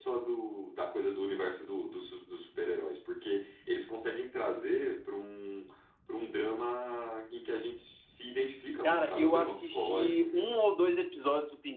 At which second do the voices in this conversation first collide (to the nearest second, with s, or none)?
9 s